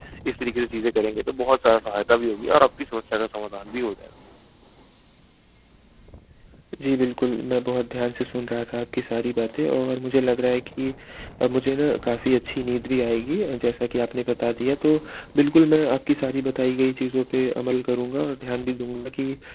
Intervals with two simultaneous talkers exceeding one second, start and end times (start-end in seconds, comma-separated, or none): none